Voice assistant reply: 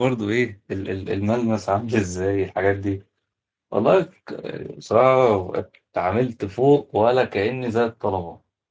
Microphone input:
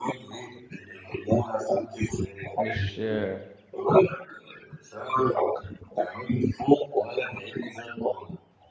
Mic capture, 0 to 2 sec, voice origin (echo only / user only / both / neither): echo only